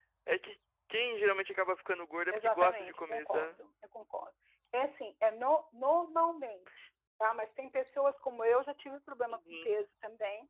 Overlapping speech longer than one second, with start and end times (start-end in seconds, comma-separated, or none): 2.3-3.6